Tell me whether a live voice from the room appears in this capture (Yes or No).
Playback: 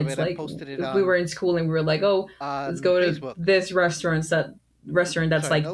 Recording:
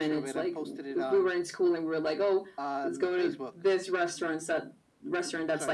No